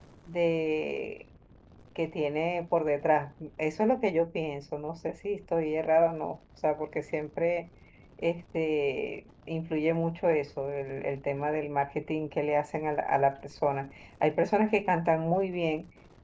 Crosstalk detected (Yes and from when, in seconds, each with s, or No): No